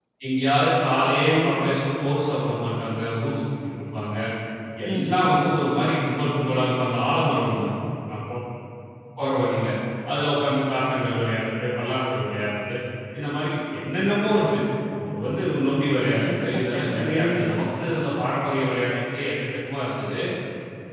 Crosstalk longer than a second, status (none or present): present